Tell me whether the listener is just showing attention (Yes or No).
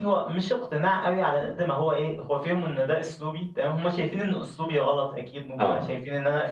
Yes